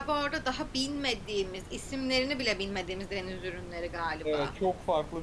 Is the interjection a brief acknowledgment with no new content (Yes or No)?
No